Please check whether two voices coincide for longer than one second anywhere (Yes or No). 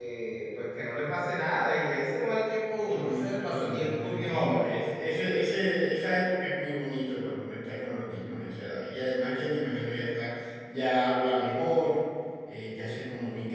Yes